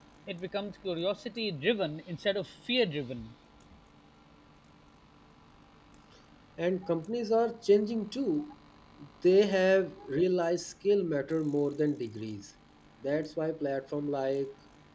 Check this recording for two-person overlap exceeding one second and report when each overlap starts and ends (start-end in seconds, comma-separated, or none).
none